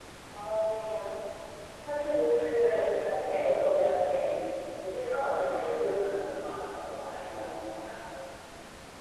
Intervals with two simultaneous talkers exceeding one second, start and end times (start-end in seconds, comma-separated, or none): 5.0-6.4